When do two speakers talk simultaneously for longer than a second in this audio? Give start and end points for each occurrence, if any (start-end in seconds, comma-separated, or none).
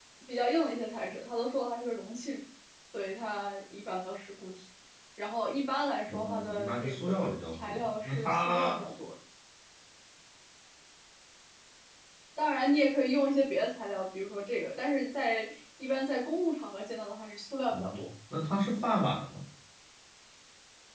6.1-8.8